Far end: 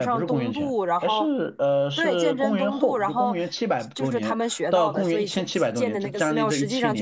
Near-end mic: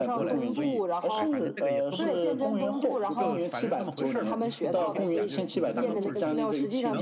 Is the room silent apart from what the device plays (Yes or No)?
No